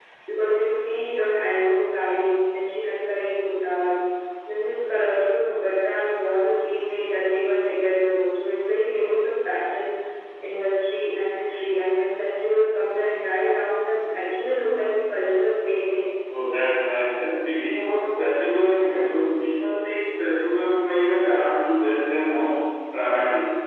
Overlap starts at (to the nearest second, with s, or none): none